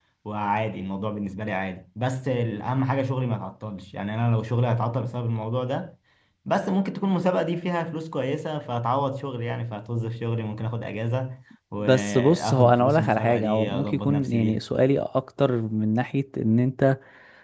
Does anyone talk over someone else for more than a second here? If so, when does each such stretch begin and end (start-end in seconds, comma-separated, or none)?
11.8-14.6